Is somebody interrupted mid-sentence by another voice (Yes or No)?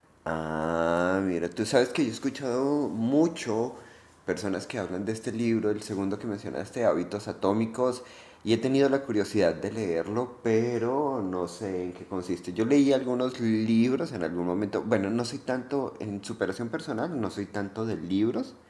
No